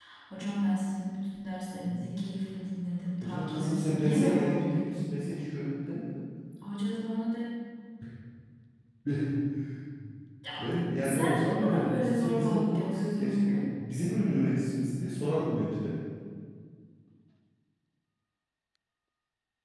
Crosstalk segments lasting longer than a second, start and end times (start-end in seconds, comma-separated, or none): 3.2-5.0, 11.0-13.6